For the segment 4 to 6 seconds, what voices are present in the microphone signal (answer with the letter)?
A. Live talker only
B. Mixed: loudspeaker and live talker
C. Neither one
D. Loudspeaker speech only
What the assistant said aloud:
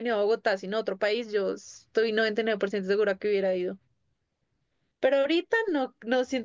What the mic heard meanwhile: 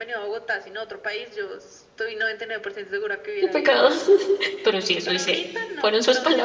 B